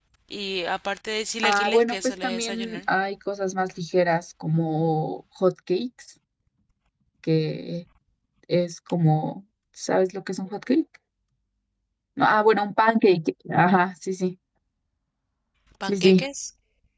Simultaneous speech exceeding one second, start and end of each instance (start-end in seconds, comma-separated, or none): 1.4-2.8